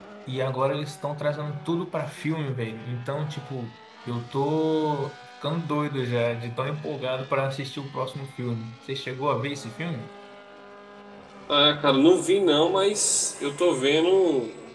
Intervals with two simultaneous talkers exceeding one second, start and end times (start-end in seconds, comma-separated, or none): none